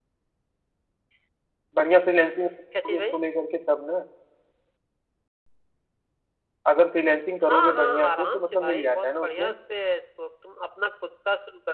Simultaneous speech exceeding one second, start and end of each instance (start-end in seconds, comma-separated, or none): 7.5-9.5